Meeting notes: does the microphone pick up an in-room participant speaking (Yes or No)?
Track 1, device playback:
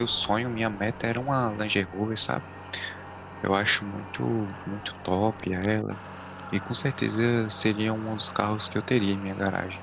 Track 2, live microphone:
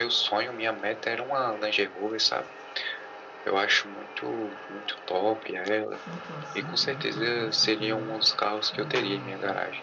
Yes